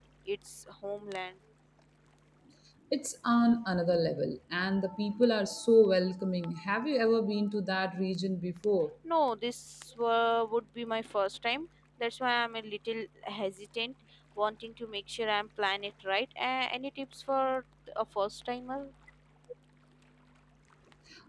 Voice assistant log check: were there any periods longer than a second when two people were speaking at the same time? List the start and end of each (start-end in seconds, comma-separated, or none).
none